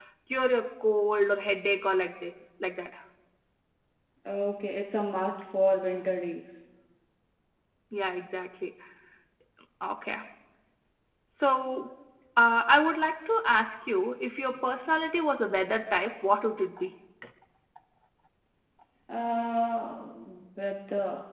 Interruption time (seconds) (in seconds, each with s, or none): none